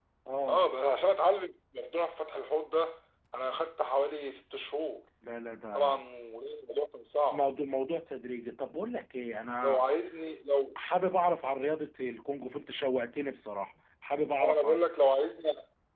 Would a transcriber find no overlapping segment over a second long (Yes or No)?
Yes